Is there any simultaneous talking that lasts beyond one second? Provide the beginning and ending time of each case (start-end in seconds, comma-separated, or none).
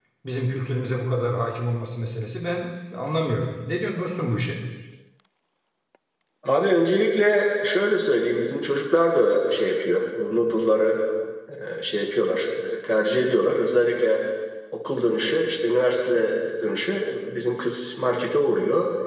none